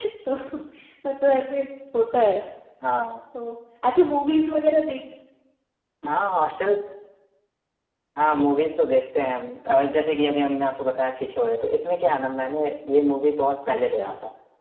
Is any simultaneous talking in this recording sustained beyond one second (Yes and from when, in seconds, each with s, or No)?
No